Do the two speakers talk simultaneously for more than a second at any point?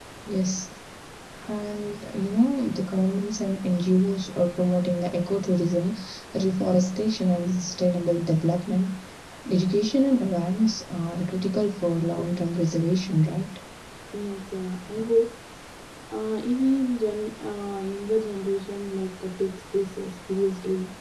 No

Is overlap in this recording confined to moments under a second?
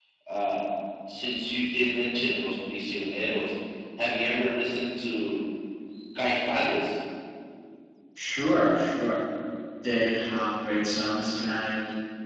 Yes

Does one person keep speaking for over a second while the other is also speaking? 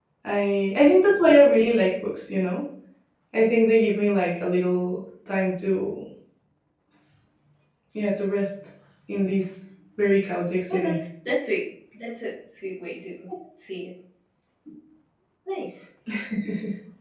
No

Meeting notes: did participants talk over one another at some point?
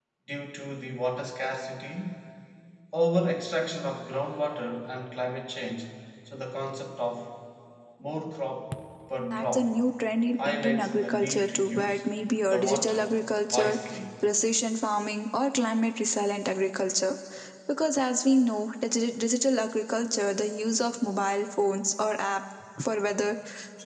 Yes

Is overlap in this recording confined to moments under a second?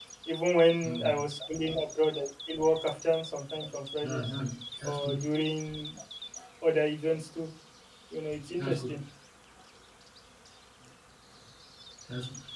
Yes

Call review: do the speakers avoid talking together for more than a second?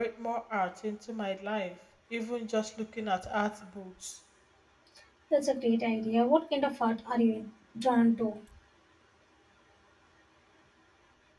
Yes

